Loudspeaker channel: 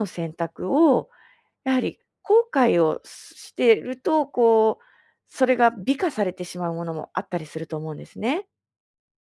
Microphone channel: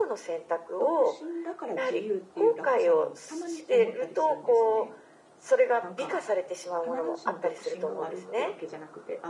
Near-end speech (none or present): present